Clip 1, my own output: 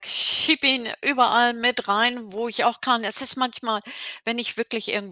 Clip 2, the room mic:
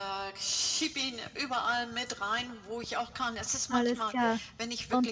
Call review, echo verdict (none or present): present